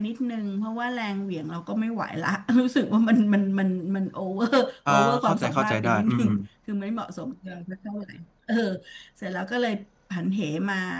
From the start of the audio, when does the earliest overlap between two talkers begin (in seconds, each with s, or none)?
4.9 s